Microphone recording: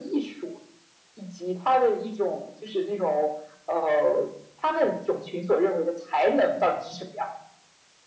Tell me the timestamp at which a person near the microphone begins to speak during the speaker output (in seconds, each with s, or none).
none